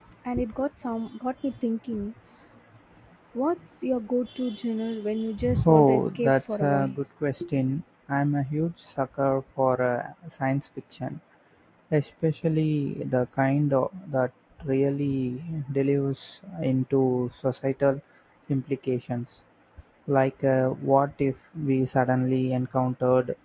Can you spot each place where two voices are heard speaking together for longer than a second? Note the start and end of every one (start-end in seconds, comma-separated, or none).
5.6-7.0